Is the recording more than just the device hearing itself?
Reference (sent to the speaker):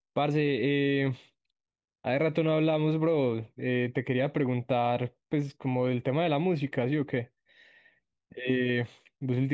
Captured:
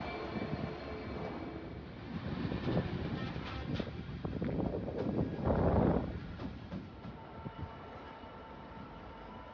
No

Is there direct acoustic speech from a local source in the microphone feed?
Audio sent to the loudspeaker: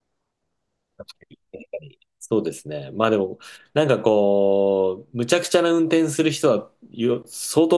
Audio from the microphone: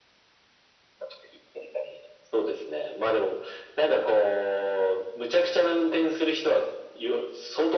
No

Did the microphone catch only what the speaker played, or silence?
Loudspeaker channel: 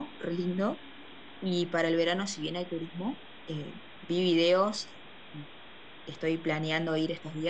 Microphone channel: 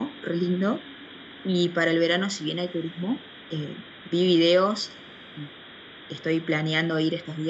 Yes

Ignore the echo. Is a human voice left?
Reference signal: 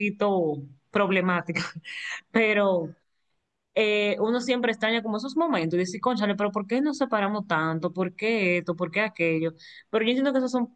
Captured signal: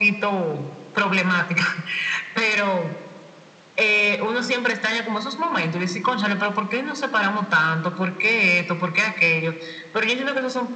No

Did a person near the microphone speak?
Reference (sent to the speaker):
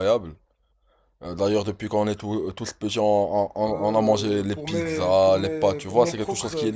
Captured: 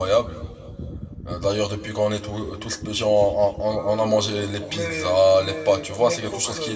No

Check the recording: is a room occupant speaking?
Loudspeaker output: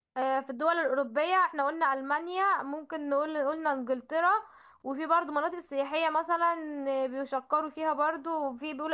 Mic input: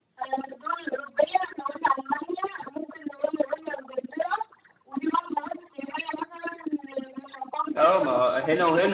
Yes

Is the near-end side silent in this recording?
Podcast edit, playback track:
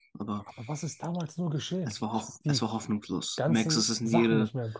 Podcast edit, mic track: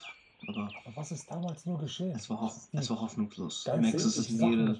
No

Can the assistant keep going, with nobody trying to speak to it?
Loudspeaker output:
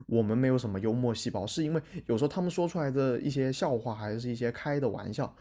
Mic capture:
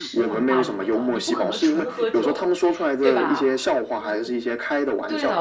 No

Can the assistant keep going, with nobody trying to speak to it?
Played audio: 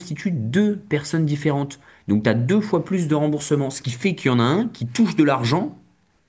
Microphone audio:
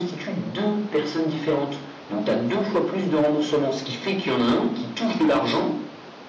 Yes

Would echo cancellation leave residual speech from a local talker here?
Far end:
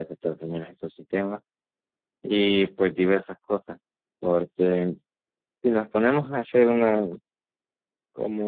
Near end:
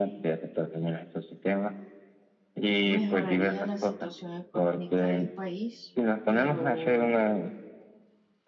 Yes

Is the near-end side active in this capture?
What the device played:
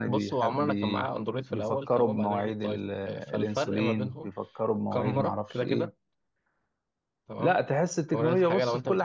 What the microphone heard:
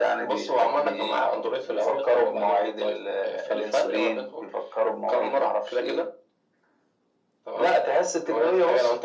No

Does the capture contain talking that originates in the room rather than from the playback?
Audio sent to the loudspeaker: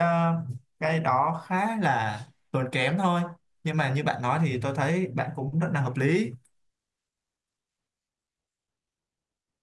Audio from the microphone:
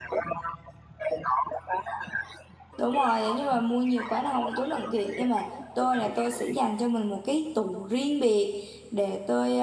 Yes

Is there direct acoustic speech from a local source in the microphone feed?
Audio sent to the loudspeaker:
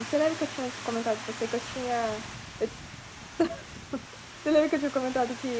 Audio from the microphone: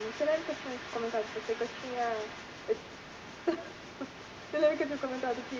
No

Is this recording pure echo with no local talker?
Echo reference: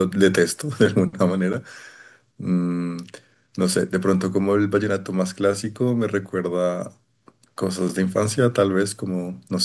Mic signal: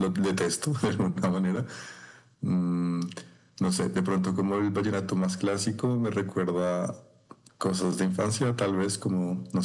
Yes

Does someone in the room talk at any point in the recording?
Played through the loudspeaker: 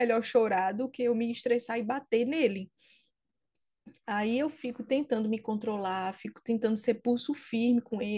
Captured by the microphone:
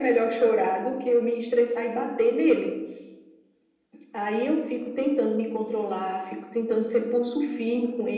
No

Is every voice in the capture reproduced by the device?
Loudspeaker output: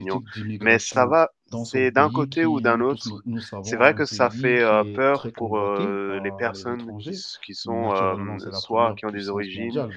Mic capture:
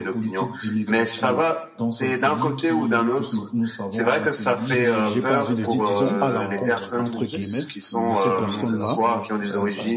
No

